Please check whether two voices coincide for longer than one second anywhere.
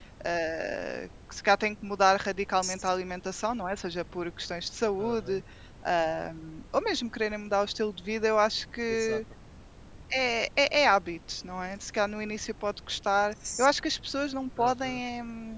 No

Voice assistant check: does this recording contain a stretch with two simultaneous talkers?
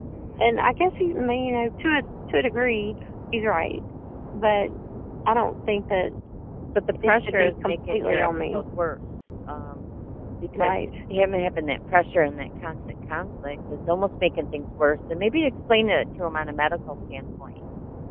Yes, from 7.0 s

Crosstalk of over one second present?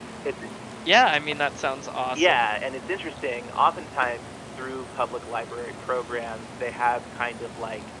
No

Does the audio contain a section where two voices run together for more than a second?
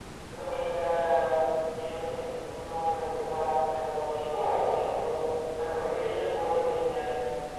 No

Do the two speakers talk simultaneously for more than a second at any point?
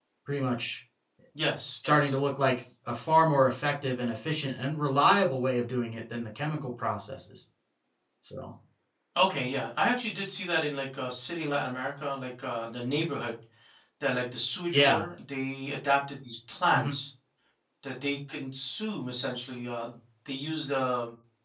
No

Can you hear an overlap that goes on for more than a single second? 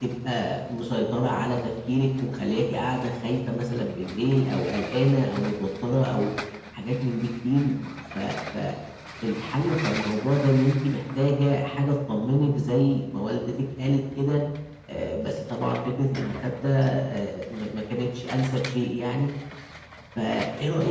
No

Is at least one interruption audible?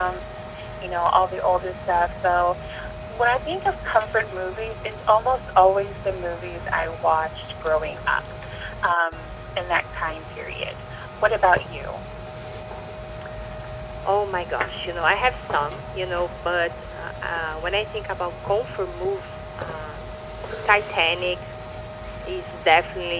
No

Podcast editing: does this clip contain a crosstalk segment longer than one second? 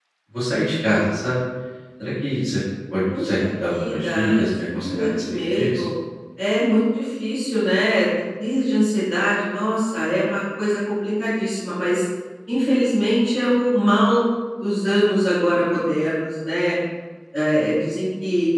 Yes, from 3.1 s

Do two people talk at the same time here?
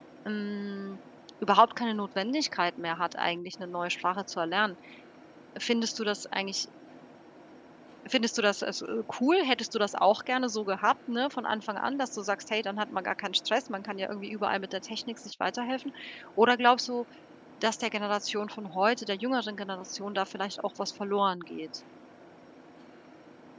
No

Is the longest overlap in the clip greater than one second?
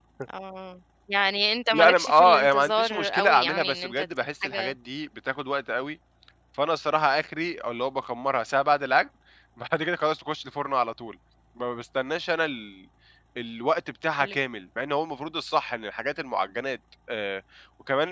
Yes, from 1.7 s

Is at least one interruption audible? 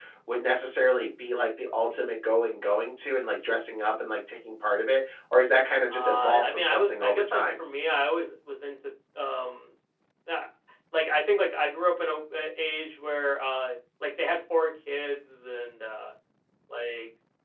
Yes, from 5.9 s

